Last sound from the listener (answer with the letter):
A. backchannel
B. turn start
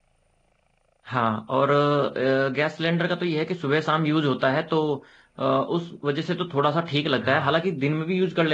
A